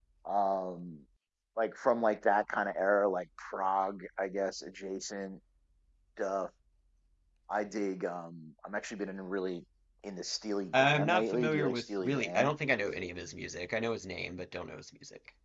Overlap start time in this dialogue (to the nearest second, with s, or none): 11 s